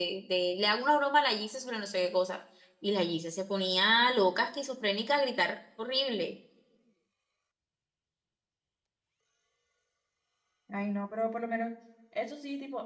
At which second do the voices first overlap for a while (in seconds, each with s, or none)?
none